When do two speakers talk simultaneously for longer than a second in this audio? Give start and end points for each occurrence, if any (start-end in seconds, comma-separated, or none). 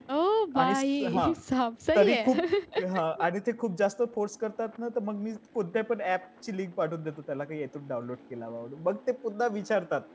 none